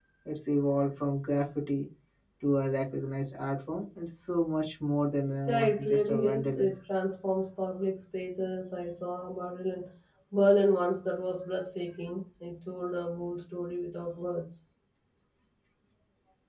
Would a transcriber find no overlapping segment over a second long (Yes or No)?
No